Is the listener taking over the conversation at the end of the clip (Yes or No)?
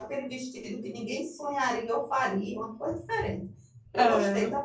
Yes